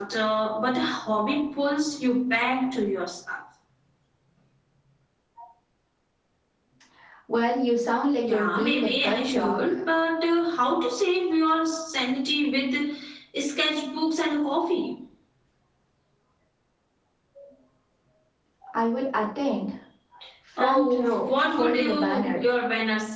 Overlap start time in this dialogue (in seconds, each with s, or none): 8.2 s